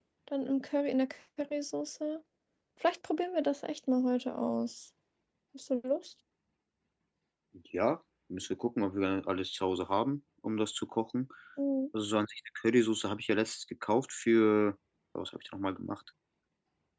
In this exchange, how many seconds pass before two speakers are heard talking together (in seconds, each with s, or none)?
none